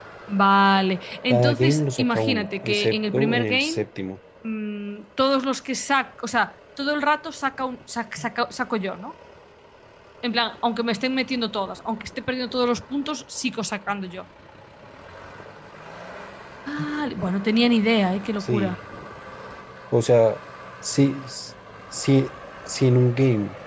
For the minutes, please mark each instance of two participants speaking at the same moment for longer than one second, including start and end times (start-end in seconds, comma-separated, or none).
1.3-3.9